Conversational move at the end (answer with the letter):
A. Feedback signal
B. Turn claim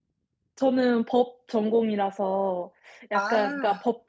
A